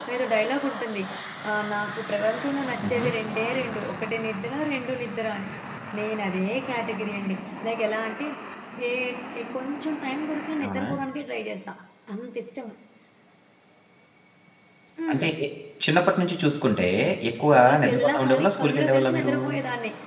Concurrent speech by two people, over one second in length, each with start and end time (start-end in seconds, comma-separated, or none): 17.5-19.3